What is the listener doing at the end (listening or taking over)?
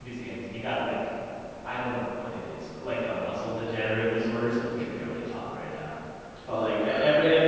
listening